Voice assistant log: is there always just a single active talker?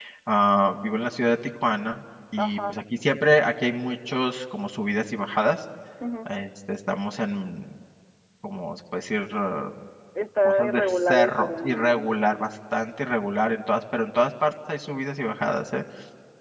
No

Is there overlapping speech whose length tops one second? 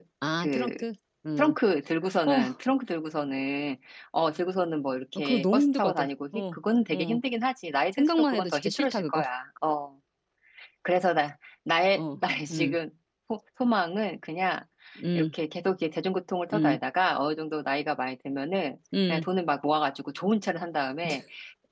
Yes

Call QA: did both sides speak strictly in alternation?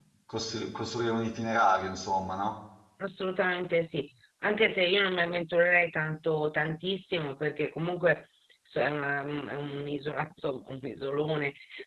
Yes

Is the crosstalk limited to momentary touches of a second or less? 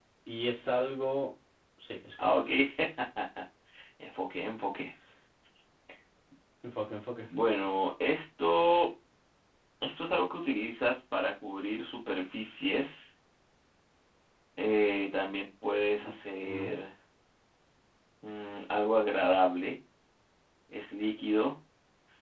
Yes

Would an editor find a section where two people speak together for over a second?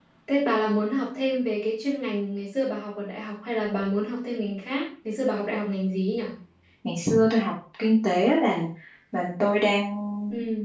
No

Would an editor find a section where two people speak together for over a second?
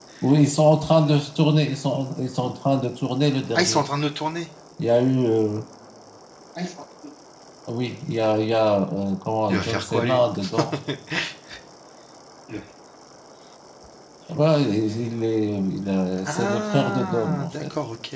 Yes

